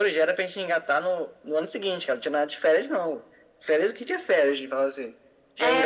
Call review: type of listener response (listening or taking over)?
taking over